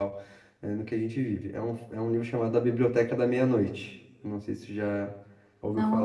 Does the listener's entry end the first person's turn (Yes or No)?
Yes